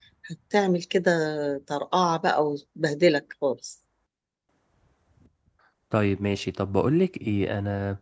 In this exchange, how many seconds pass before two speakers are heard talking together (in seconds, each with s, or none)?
none